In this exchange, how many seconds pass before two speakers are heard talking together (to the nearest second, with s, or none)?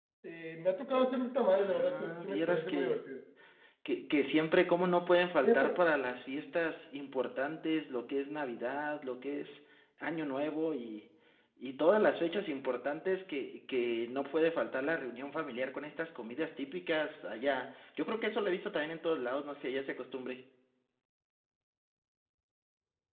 1 s